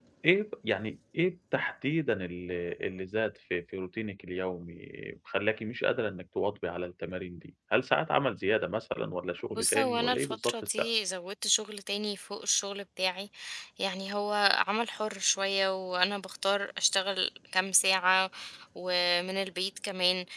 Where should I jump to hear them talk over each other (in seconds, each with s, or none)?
9.5 s